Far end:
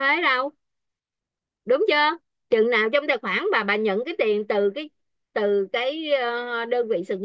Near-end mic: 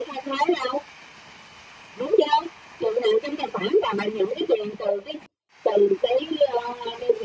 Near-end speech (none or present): none